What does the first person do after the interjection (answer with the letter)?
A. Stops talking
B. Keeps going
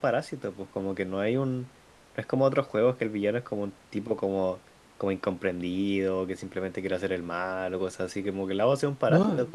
B